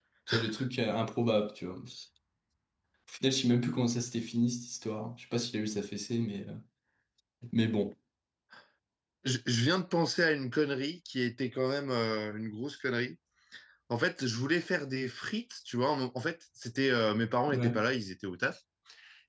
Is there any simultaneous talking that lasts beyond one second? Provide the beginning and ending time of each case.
none

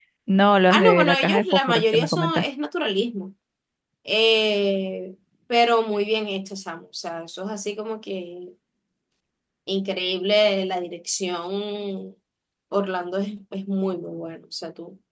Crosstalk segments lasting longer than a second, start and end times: 0.7-2.5

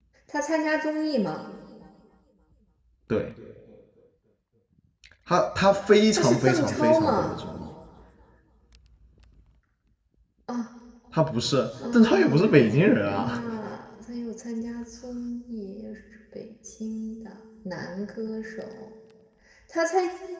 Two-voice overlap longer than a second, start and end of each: 6.1-7.3, 11.9-13.4

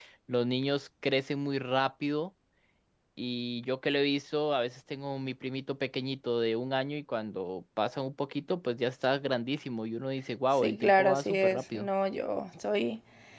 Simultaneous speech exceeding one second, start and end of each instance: 10.6-11.9

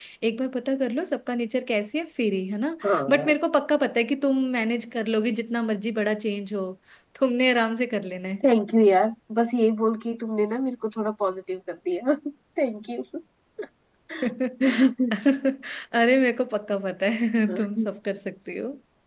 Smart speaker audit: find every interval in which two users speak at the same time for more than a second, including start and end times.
none

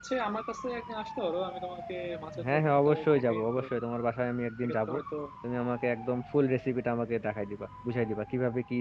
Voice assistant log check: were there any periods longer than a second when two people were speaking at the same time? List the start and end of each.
2.5-3.8

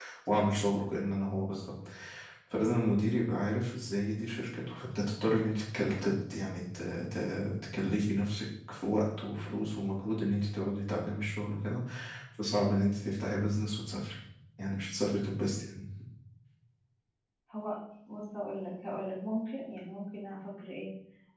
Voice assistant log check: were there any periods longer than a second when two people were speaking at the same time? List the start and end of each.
none

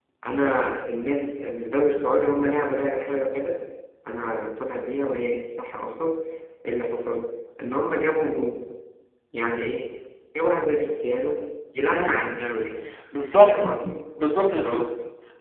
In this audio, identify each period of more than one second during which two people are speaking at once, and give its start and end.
none

